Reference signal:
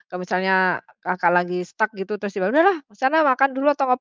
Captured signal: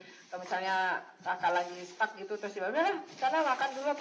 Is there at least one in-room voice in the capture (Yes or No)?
No